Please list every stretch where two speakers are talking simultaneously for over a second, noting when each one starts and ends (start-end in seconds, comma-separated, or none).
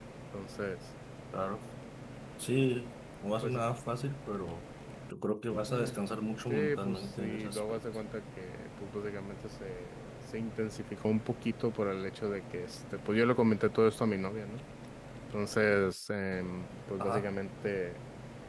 6.5-7.8